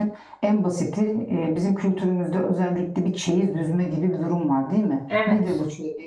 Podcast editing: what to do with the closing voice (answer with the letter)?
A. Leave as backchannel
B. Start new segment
A